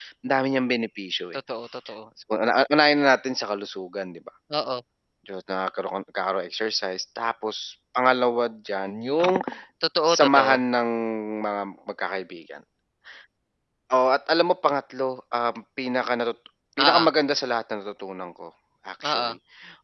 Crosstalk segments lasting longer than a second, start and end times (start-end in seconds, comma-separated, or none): none